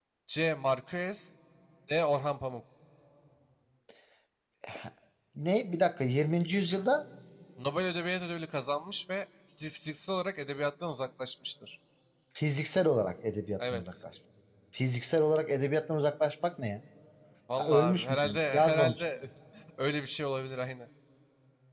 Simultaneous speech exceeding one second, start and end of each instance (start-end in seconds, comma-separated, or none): 17.6-19.0